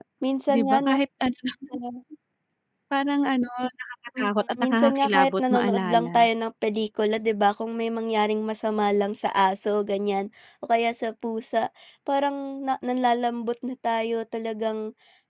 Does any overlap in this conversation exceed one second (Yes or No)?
Yes